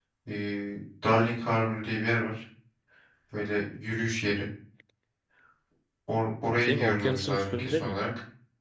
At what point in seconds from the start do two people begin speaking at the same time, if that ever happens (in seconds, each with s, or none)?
6.6 s